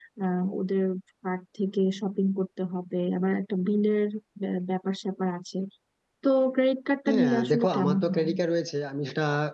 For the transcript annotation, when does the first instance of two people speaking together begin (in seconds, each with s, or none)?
7.1 s